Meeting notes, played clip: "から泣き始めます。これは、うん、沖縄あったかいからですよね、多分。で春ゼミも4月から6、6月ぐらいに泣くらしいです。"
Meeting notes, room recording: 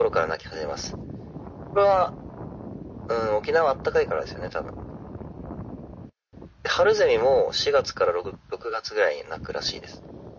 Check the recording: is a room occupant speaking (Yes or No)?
No